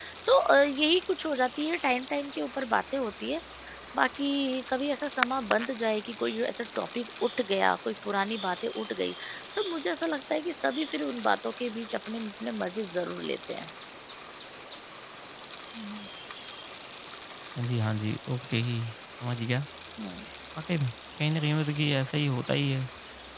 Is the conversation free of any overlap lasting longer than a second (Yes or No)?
Yes